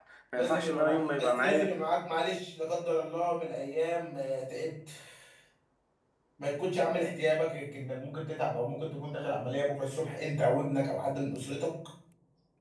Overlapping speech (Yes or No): Yes